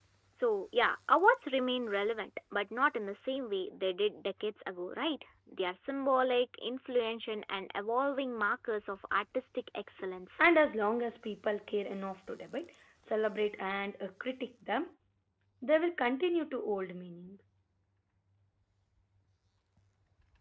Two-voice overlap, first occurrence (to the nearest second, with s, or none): none